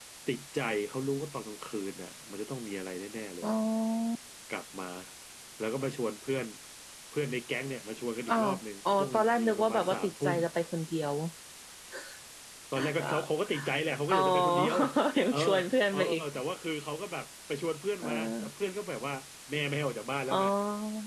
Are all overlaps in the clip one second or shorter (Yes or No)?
No